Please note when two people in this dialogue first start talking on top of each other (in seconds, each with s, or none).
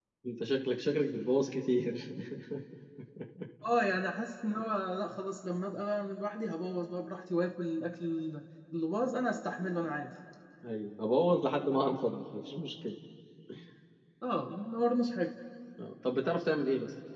none